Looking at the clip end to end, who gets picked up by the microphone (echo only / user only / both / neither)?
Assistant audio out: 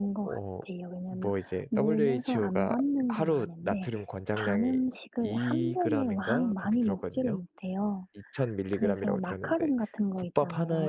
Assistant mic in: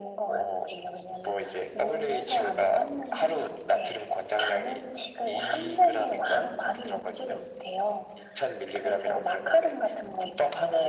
echo only